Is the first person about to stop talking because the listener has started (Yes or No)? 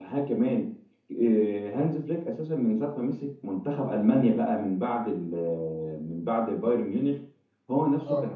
No